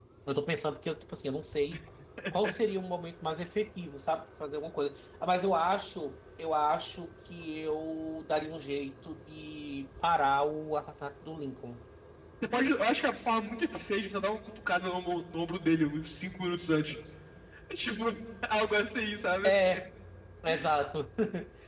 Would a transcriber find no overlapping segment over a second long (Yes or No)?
Yes